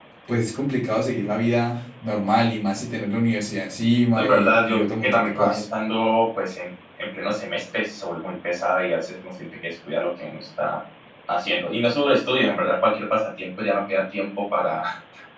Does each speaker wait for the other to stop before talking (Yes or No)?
No